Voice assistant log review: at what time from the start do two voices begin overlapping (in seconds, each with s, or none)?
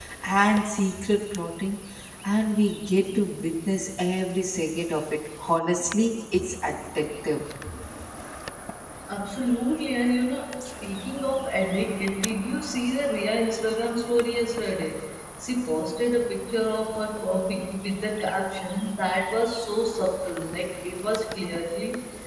none